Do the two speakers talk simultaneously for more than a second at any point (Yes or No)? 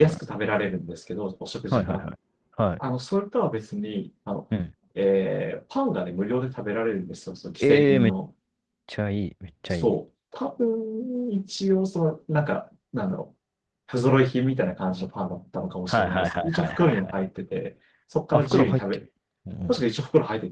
Yes